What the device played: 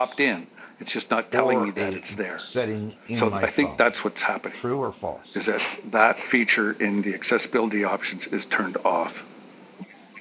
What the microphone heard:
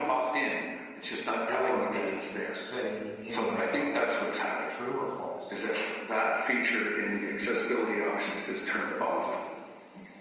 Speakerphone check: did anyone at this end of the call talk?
Yes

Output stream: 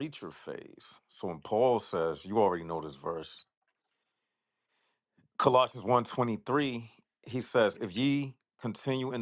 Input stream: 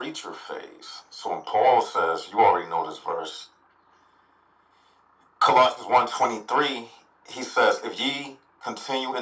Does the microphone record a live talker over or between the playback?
No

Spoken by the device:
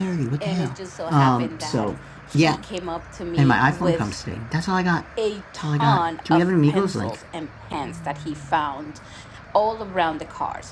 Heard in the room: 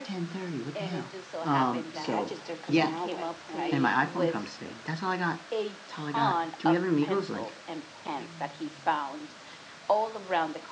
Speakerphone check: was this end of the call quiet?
No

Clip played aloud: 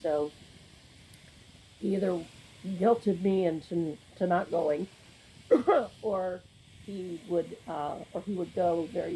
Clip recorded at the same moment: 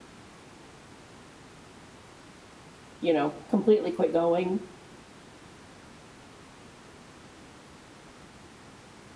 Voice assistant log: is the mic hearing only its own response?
No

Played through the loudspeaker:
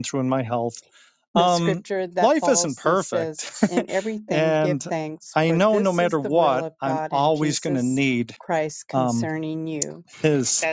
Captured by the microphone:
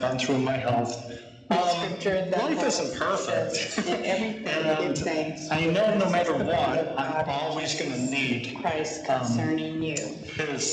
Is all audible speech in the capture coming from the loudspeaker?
Yes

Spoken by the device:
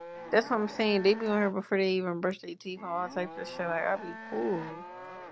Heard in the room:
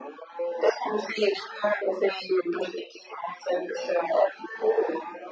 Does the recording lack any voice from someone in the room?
Yes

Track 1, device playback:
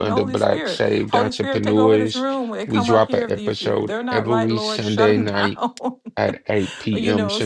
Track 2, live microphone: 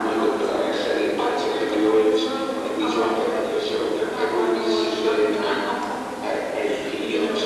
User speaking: No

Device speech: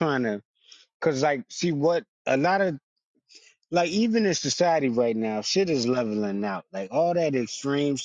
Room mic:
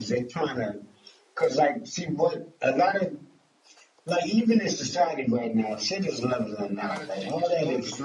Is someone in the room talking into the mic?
Yes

